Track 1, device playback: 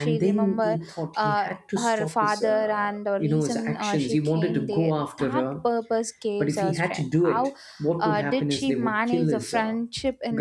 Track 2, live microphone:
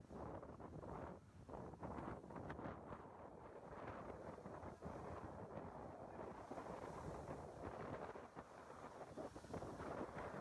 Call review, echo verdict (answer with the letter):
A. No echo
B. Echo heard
A